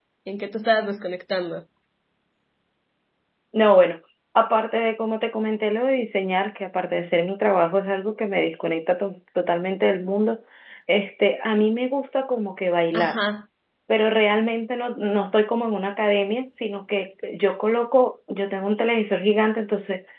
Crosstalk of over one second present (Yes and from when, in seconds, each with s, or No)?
No